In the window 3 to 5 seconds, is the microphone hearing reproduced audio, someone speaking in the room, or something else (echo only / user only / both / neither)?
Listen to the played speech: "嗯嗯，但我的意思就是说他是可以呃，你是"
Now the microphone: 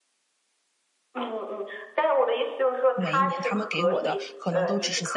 both